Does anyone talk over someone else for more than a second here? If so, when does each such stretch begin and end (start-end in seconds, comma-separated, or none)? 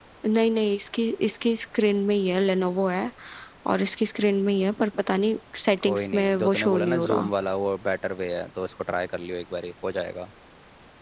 5.8-7.3